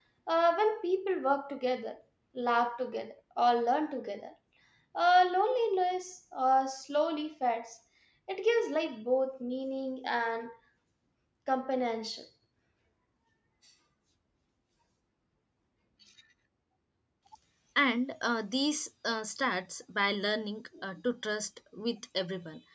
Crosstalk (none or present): none